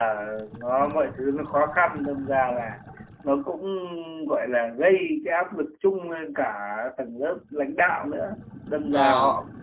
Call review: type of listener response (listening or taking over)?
listening